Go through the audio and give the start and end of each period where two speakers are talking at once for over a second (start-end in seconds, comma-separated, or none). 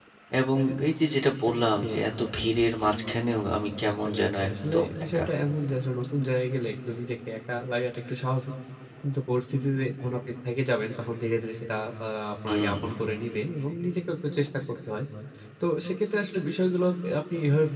3.8-5.2